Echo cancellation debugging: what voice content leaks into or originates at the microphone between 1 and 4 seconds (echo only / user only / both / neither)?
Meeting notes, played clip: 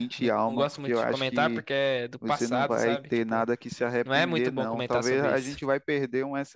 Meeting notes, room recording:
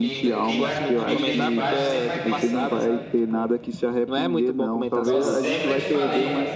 both